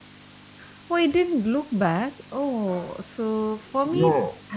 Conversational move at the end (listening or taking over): listening